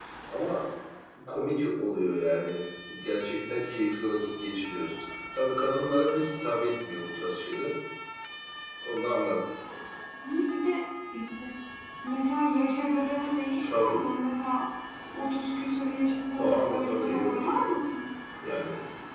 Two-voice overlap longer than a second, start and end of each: 16.4-17.8

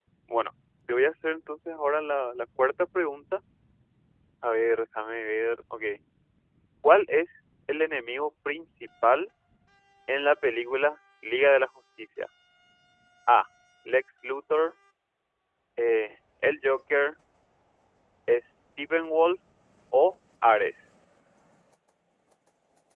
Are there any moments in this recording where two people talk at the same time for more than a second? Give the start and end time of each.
none

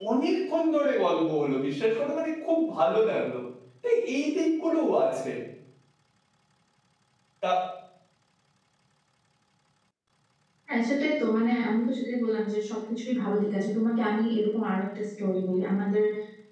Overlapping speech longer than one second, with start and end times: none

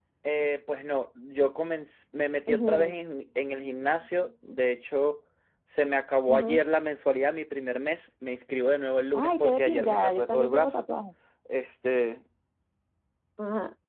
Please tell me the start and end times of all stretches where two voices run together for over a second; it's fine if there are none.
9.1-10.8

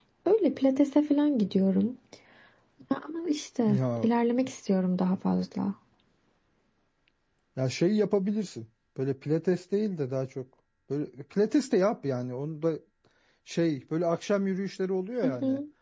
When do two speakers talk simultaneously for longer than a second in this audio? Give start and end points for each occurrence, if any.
none

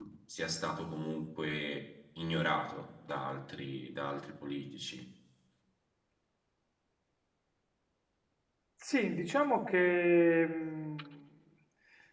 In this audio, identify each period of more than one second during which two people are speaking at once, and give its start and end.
none

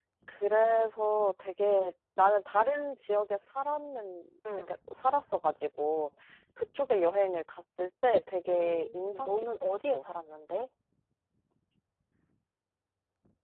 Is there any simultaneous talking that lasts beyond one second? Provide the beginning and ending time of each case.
8.5-10.1

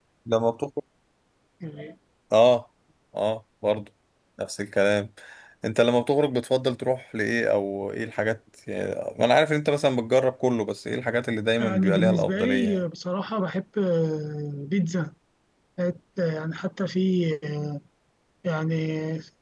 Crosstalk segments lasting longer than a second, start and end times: 11.6-12.8

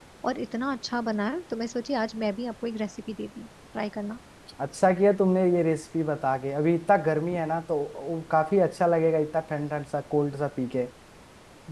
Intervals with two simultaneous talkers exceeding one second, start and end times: none

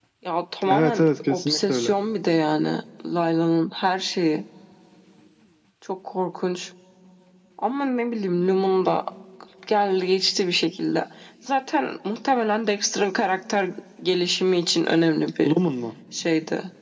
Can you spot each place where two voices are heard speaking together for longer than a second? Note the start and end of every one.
0.7-1.9

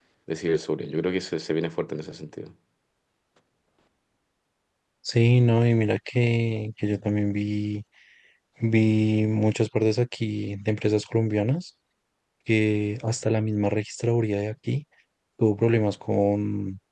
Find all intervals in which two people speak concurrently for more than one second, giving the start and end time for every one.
none

